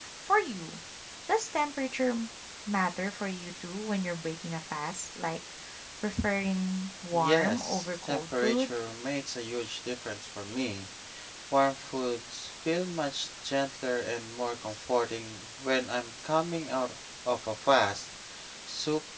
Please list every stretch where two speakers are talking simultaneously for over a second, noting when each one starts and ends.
7.1-8.7

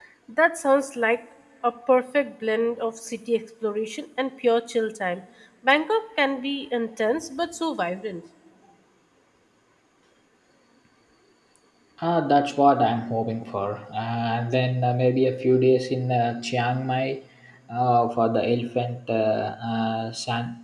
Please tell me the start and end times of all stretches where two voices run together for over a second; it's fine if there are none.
none

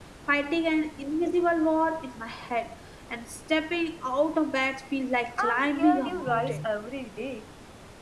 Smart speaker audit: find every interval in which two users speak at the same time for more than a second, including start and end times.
5.4-6.6

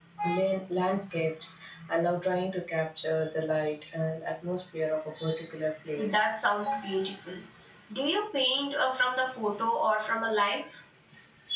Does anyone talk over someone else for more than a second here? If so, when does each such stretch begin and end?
none

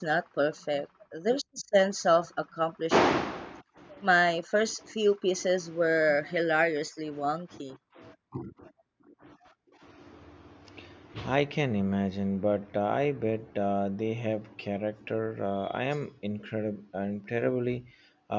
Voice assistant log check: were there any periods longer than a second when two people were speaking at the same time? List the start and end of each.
none

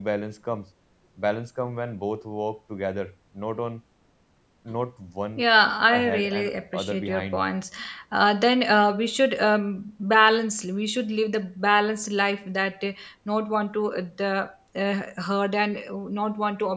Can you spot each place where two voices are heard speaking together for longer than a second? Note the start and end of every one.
5.9-7.4

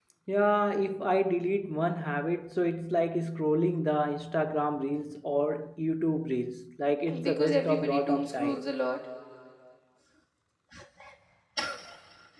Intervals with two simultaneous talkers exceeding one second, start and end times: 7.1-8.6

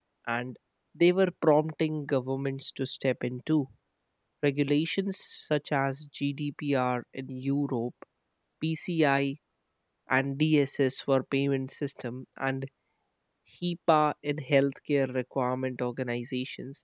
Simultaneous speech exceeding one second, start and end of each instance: none

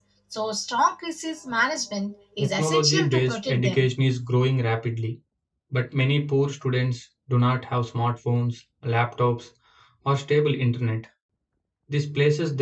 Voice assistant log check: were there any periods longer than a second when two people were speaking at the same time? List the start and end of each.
2.4-3.9

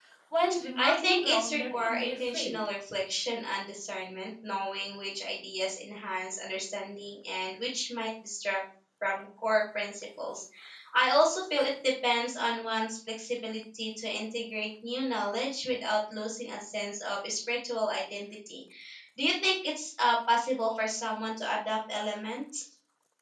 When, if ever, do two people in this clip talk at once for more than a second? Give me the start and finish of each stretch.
0.8-2.6

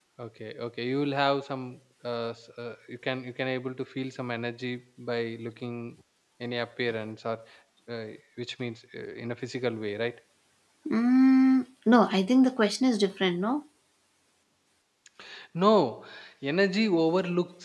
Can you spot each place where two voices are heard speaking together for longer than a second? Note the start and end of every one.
none

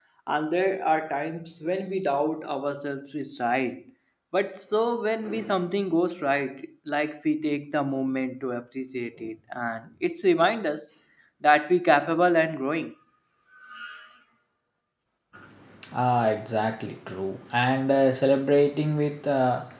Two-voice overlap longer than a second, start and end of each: none

